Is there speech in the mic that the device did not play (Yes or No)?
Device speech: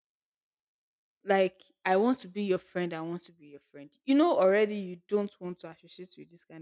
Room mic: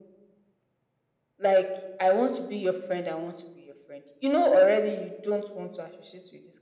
No